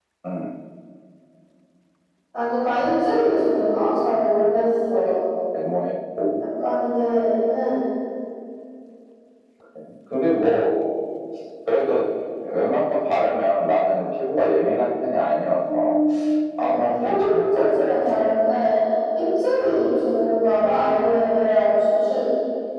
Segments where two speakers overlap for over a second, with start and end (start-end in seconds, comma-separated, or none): 16.6-17.8